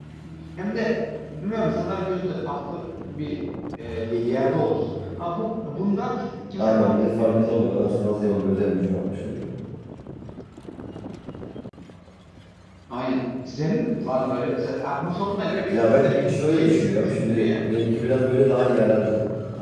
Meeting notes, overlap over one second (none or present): present